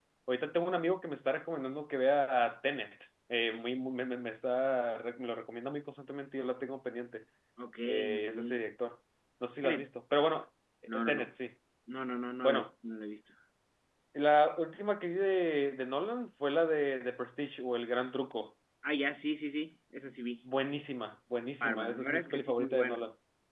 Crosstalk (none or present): present